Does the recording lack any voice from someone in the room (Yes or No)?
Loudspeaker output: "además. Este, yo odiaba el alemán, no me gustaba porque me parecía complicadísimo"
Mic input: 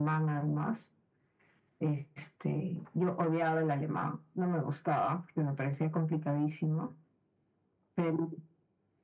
Yes